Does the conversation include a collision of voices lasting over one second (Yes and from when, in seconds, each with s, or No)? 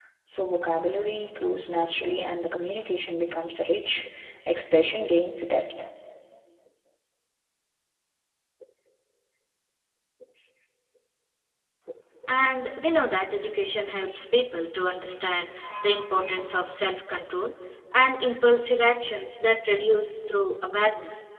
No